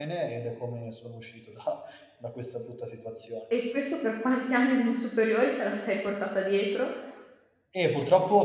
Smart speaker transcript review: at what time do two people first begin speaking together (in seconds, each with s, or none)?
none